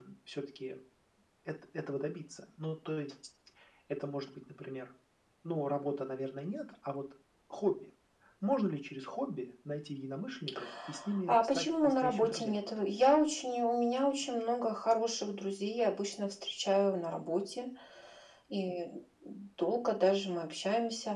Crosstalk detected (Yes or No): Yes